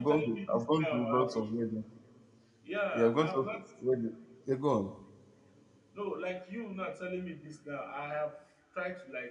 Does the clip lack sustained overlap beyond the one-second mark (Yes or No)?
No